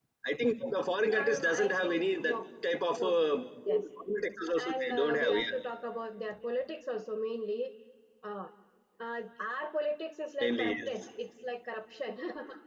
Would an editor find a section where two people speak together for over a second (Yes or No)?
Yes